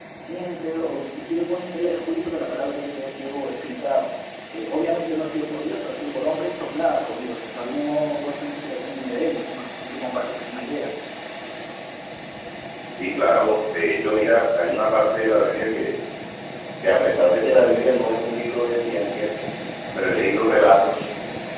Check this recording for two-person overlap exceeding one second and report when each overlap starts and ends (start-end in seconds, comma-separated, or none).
none